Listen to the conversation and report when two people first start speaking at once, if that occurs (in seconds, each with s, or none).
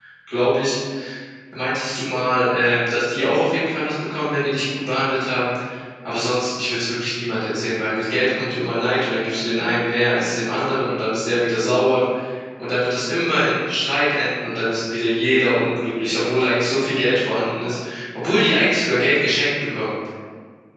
none